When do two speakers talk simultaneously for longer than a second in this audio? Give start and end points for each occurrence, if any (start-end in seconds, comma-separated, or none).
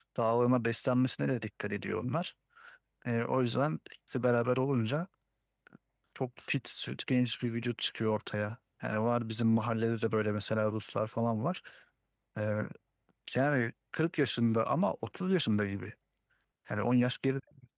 none